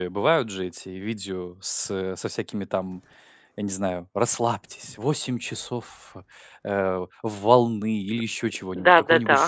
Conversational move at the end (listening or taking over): taking over